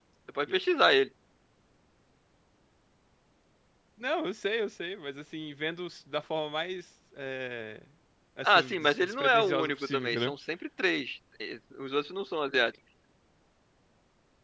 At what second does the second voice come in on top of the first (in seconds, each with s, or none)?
8.4 s